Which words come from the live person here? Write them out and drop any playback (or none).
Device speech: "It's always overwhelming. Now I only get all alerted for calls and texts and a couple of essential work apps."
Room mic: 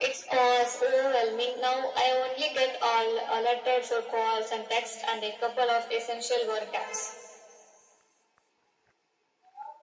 none